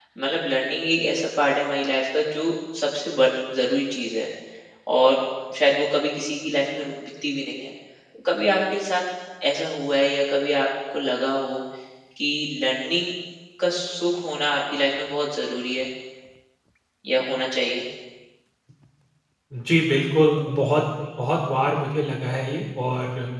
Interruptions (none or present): none